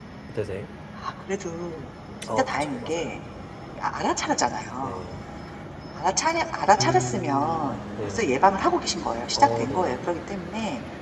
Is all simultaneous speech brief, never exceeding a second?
No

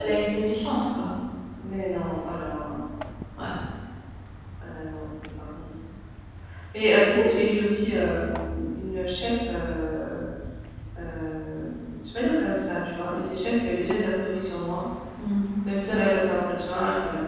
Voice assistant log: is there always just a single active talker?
Yes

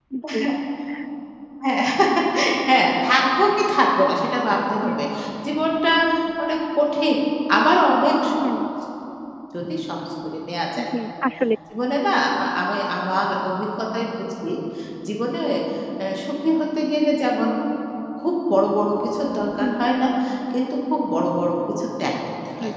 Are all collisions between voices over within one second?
Yes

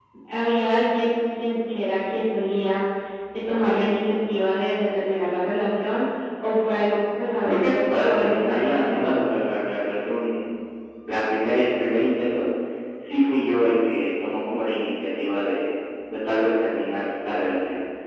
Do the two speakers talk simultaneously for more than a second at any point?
Yes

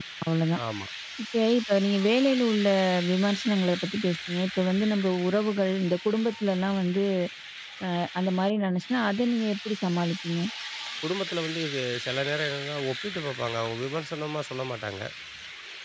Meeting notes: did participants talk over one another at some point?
No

